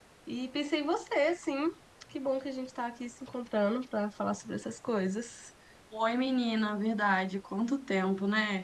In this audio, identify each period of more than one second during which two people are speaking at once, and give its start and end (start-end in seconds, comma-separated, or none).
none